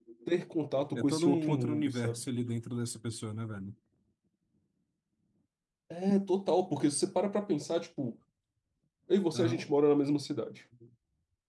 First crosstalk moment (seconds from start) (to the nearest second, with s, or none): 1 s